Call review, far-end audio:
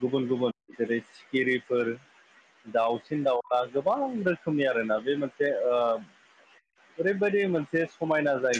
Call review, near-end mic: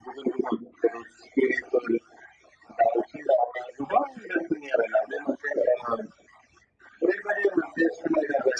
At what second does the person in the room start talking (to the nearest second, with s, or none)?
none